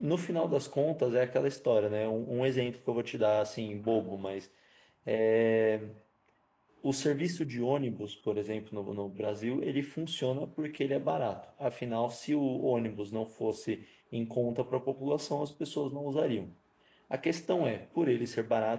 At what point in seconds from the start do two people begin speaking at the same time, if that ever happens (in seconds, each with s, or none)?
none